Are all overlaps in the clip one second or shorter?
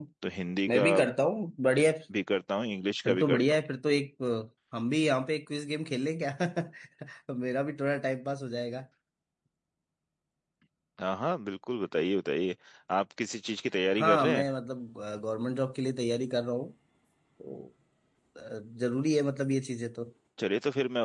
Yes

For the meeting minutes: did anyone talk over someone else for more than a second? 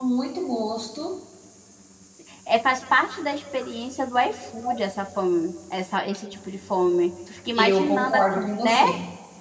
Yes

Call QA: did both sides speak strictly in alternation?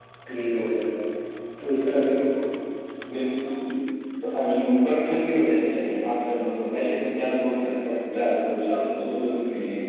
Yes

